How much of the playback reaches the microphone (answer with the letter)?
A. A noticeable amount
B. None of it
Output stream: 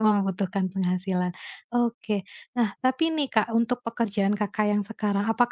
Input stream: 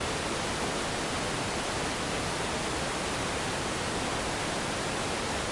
B